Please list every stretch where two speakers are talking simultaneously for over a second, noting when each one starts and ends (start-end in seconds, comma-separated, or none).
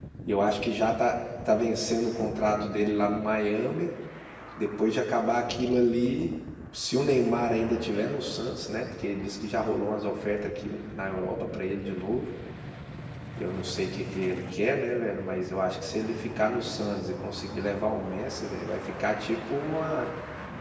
none